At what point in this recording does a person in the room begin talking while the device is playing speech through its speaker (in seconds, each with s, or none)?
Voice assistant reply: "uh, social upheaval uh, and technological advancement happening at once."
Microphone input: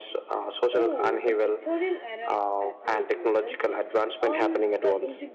0.7 s